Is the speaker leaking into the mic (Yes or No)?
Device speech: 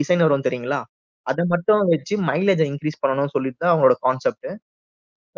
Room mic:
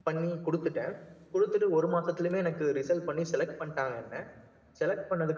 No